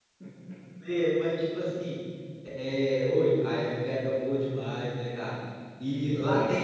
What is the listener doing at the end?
listening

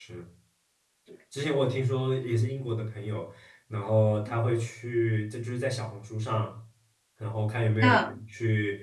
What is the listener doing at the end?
listening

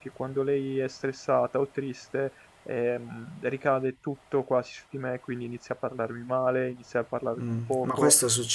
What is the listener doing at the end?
taking over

